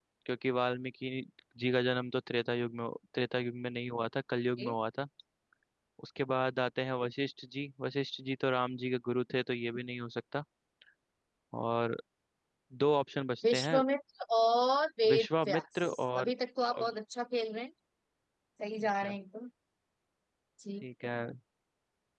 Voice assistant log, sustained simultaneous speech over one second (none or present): present